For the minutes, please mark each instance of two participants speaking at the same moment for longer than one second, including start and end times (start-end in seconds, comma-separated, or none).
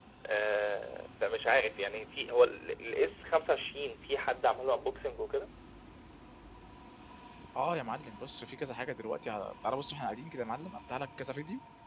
none